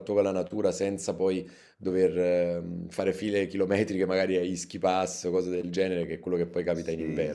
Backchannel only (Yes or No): No